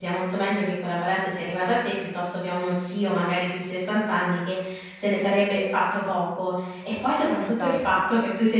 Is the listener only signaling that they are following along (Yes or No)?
Yes